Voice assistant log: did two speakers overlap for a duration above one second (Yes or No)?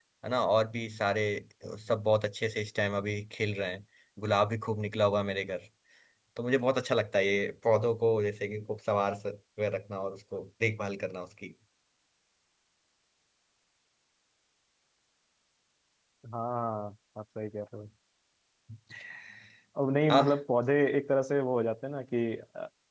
No